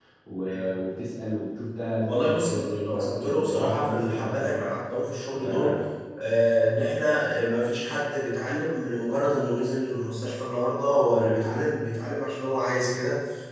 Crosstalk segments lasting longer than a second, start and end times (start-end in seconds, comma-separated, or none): 2.0-4.6